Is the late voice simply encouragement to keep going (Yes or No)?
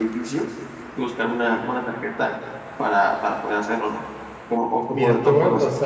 No